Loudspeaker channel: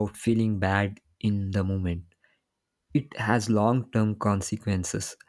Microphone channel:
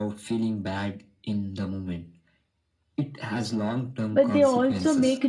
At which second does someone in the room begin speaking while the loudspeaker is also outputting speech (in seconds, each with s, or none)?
4.1 s